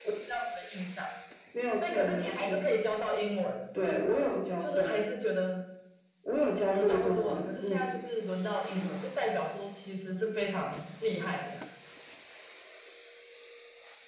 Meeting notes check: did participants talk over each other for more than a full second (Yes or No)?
Yes